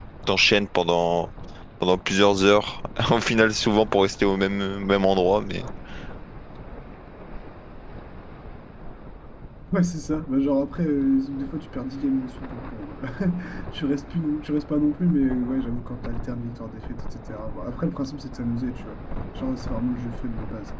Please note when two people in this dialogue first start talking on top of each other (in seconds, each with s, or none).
none